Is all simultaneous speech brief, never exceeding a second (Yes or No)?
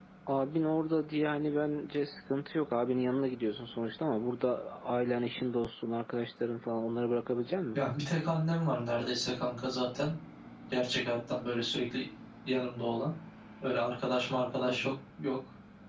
Yes